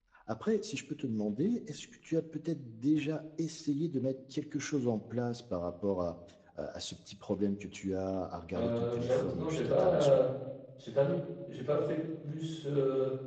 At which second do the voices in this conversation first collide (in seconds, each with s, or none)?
8.6 s